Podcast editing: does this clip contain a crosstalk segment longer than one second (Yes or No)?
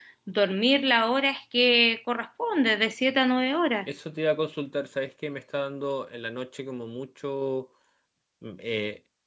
No